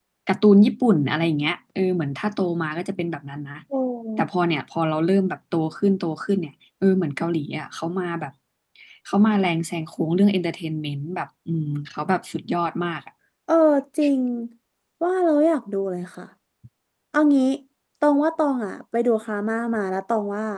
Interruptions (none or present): none